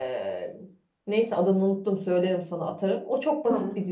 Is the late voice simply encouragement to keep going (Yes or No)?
Yes